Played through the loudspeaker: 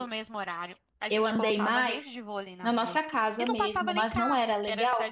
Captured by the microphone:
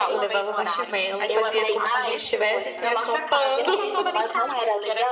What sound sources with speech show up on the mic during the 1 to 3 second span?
both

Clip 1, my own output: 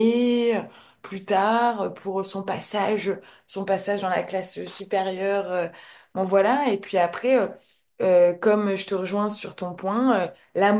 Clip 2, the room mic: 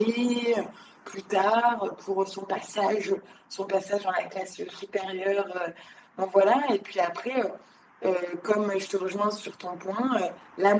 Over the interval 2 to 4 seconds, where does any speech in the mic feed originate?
echo only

